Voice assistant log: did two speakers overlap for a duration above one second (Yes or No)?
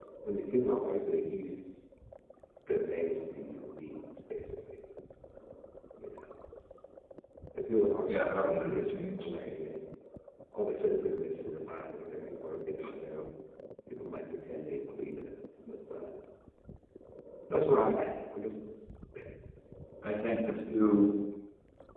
Yes